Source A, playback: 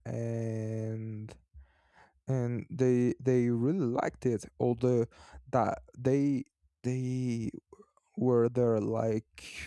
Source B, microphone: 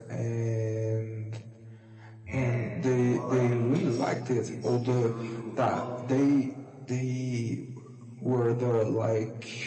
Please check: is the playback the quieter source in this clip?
No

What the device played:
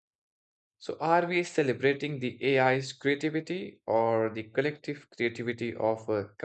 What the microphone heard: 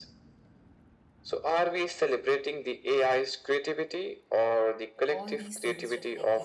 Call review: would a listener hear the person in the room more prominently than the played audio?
No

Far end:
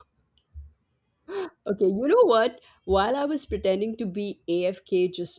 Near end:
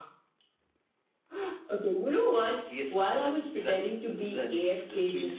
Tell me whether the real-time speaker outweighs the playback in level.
No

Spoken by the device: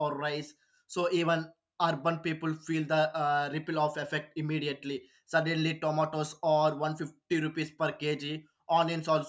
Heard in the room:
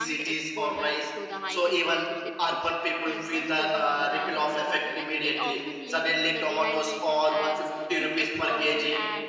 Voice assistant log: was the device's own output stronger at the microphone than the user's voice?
Yes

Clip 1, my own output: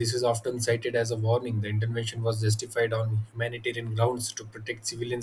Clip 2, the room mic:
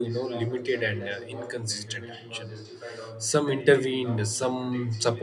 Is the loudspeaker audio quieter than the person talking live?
Yes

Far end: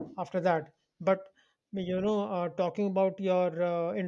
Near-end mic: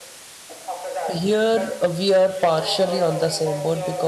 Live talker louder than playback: Yes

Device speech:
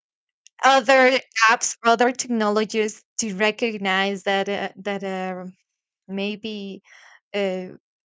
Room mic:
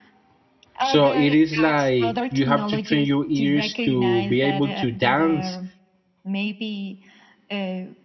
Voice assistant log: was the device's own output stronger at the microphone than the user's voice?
No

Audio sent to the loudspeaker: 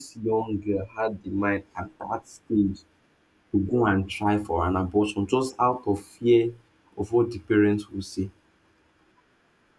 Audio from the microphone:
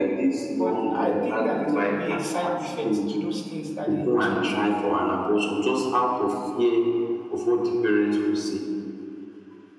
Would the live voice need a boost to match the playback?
Yes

